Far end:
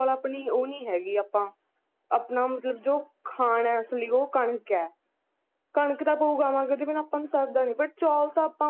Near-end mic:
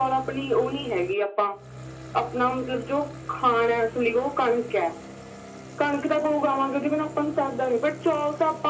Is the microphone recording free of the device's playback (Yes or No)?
No